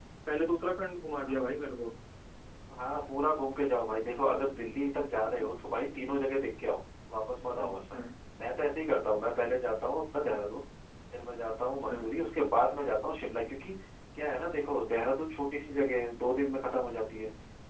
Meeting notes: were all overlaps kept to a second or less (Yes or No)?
Yes